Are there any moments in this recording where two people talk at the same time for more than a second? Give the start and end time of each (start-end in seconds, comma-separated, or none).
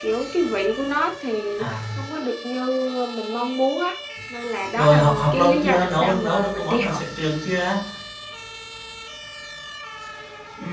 4.8-7.0